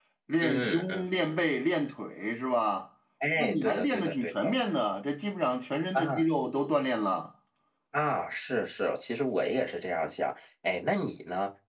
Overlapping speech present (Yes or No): Yes